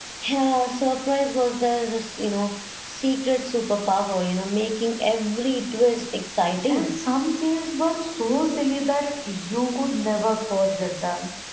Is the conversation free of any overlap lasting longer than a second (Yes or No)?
Yes